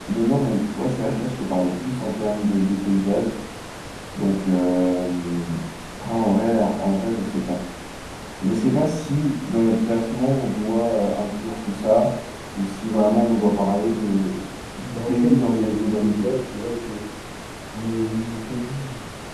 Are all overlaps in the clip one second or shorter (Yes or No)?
No